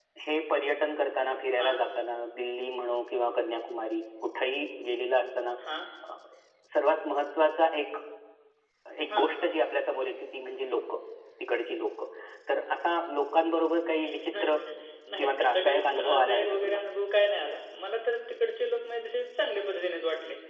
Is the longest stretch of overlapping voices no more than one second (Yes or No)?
No